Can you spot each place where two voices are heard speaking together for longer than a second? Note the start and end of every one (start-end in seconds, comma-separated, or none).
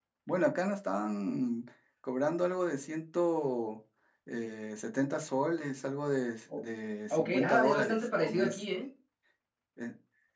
7.1-8.6